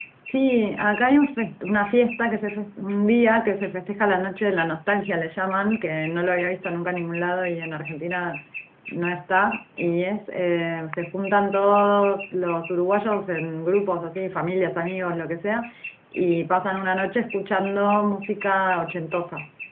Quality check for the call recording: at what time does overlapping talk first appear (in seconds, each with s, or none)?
none